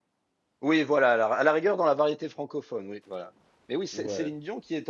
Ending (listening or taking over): listening